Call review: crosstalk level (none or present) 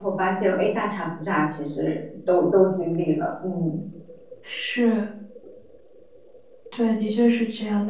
none